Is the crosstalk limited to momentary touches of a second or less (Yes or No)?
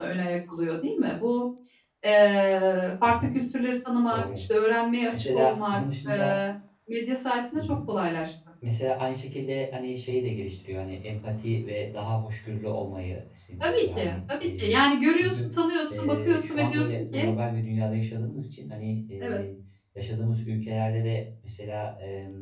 No